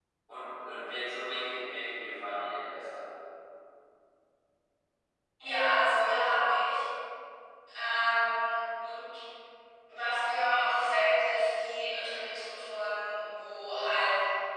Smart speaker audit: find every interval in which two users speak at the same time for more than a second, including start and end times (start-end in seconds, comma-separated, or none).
none